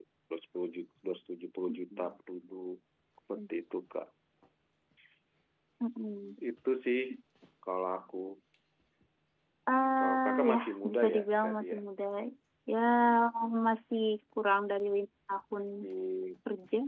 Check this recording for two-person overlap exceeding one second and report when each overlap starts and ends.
10.0-11.8

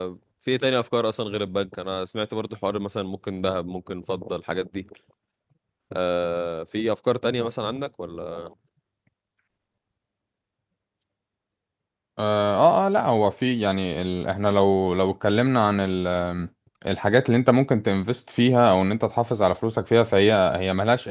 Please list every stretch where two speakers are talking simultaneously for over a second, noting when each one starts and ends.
none

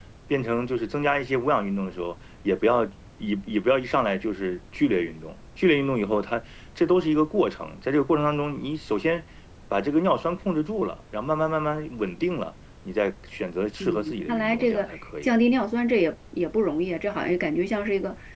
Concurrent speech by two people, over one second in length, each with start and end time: 13.8-15.3

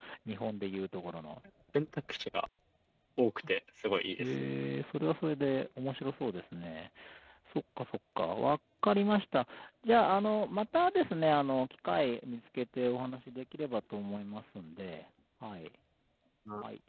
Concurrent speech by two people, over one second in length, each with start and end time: none

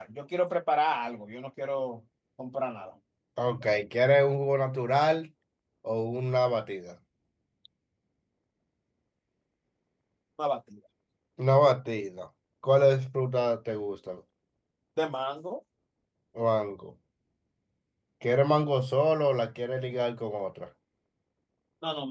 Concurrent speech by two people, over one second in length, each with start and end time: none

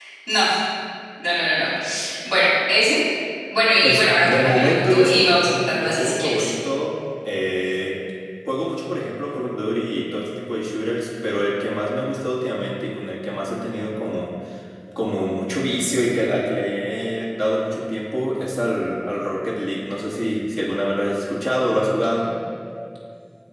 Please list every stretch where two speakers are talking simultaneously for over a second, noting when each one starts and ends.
3.8-6.5

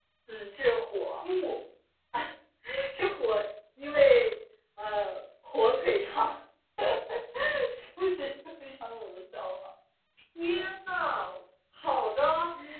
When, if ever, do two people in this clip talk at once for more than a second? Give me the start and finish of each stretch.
none

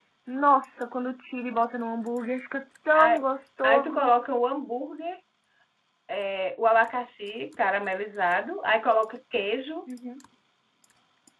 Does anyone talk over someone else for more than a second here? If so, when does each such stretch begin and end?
none

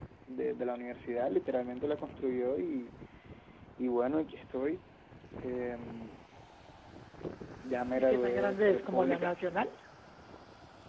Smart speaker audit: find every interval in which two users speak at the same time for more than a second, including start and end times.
8.0-9.3

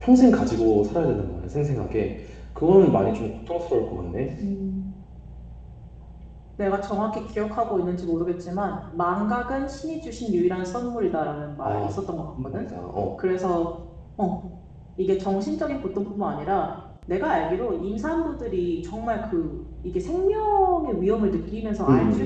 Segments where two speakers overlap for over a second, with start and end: none

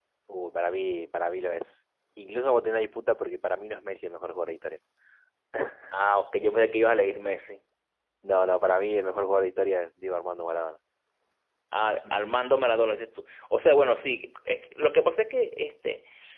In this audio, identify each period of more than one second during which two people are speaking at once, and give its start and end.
none

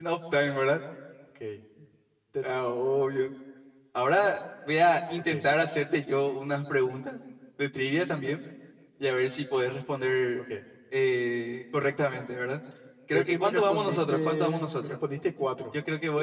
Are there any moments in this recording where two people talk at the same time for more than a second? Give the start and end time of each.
13.1-14.9

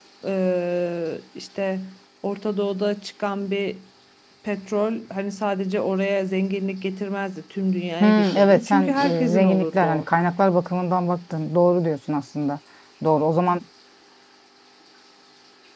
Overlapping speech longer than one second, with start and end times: 8.0-10.1

